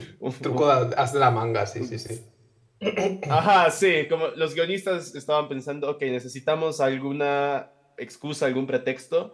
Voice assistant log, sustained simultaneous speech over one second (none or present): none